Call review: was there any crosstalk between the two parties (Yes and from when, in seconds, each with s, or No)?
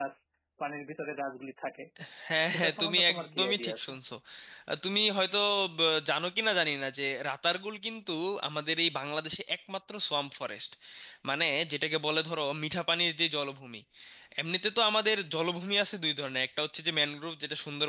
Yes, from 2.5 s